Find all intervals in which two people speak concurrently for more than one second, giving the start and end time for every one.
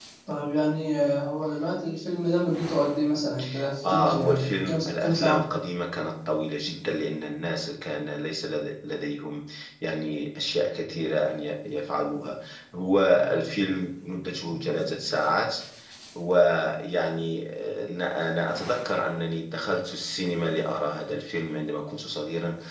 3.9-5.4

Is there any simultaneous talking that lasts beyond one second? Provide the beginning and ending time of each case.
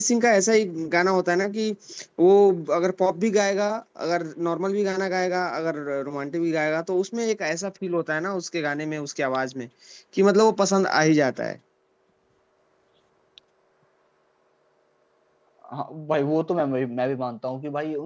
none

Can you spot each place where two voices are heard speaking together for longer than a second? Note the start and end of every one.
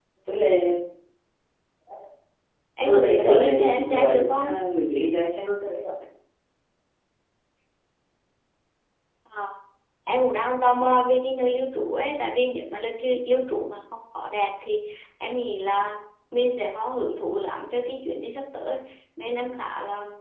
2.9-4.5

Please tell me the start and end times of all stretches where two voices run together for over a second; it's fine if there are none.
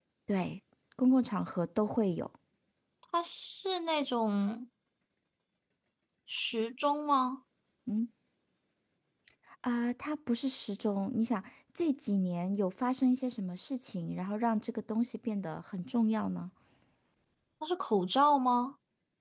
none

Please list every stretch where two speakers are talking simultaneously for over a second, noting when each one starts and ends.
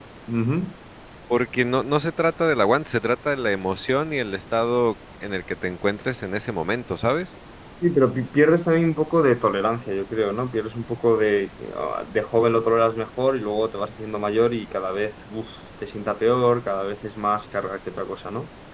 none

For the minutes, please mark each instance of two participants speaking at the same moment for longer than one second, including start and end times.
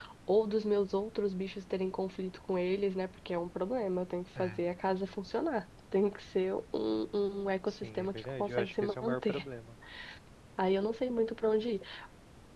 7.7-9.4

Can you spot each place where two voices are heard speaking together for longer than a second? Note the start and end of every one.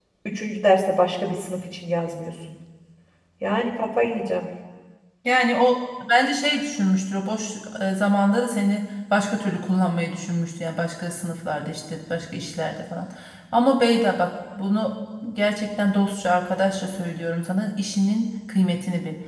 none

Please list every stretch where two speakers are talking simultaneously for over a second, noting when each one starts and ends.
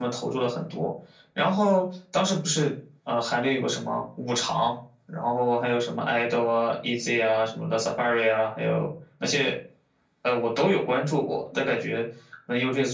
none

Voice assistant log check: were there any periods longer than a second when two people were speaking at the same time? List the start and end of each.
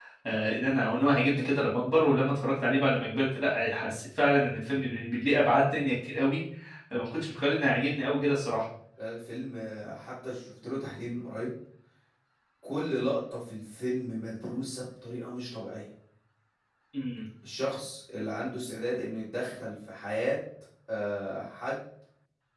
none

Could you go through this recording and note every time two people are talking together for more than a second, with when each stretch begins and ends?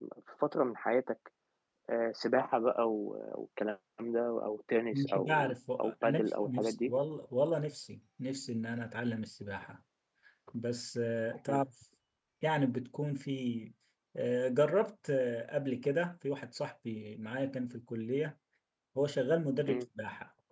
4.9-6.9

